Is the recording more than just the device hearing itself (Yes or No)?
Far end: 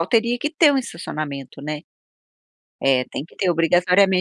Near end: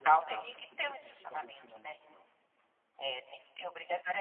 Yes